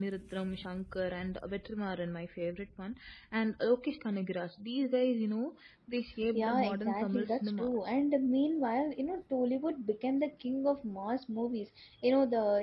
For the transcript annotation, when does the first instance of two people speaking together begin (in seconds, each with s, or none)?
6.3 s